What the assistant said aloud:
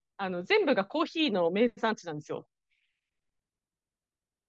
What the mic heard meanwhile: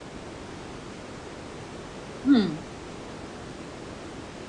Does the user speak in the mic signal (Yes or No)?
Yes